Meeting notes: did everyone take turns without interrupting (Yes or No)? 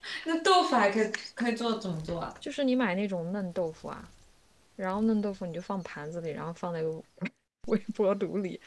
Yes